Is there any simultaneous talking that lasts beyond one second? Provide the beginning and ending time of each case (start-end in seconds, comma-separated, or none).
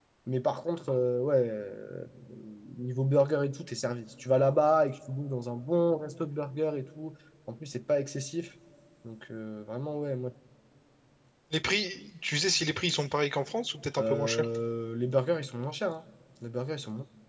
none